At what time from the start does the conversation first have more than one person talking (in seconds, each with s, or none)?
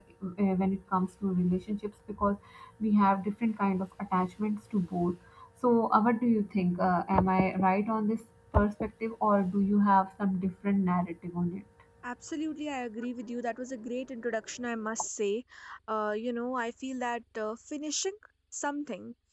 none